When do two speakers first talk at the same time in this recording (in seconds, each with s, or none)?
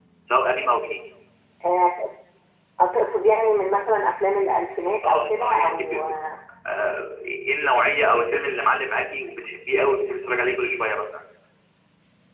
5.0 s